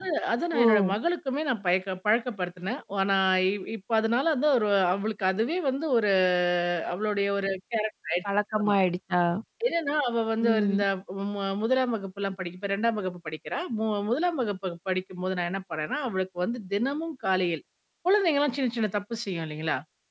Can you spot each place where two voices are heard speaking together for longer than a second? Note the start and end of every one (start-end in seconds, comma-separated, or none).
none